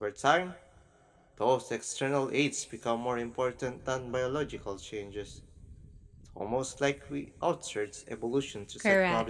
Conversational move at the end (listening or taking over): taking over